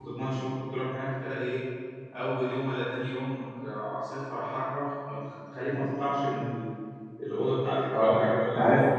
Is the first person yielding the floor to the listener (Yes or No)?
Yes